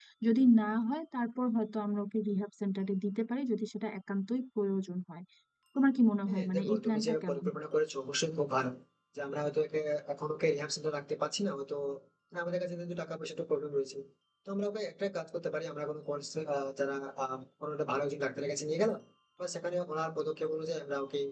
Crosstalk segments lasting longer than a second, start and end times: 6.3-7.6

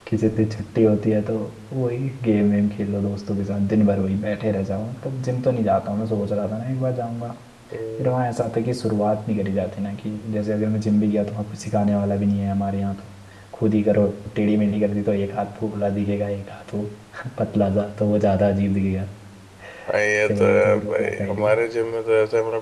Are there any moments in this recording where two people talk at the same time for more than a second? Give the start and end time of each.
20.3-21.6

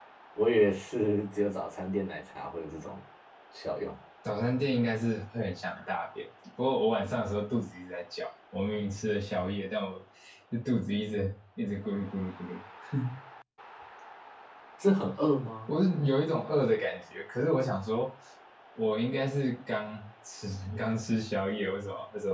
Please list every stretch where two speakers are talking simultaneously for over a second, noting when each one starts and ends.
none

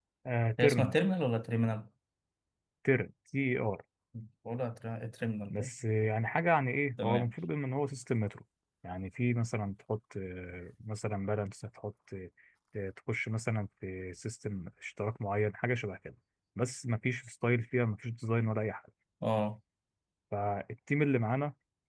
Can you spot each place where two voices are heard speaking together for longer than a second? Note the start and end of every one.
none

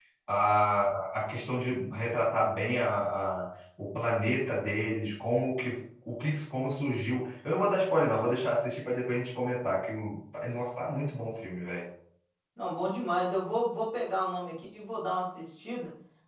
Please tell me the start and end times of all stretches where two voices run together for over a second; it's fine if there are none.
none

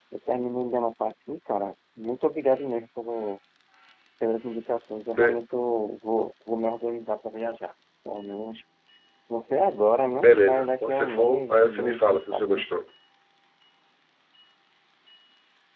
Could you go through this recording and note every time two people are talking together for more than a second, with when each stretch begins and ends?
10.2-12.6

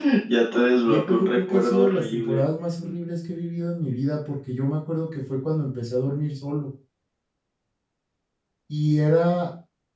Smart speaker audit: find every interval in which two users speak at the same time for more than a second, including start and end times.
0.9-2.4

